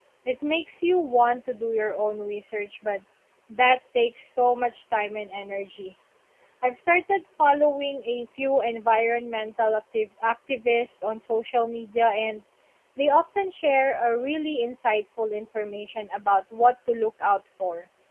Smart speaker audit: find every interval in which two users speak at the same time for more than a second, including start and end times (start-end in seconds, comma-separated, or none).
none